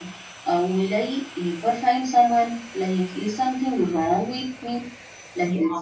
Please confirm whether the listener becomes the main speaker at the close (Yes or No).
Yes